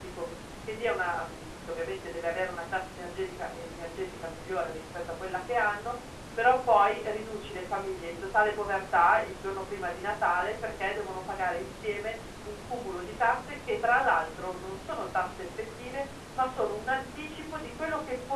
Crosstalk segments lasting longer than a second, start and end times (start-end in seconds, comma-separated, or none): none